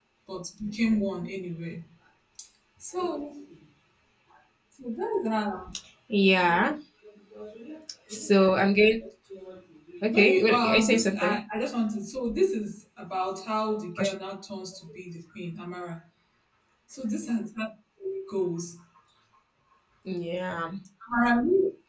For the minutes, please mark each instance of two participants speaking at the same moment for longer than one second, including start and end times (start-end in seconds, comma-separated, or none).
10.1-11.4